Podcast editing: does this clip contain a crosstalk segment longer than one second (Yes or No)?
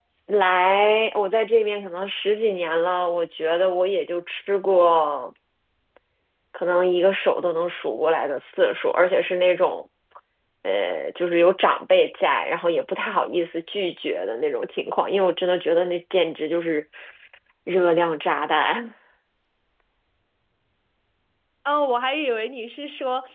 No